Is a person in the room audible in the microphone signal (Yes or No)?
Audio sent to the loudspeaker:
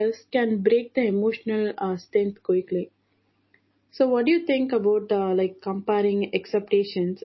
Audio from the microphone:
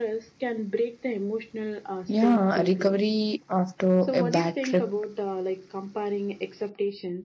Yes